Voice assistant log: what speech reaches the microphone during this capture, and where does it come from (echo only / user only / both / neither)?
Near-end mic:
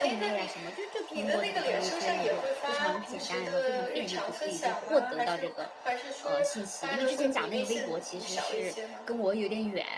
both